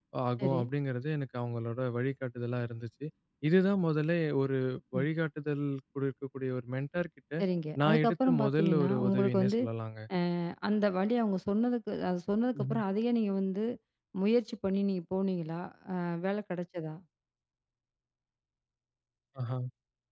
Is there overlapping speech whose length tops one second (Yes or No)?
Yes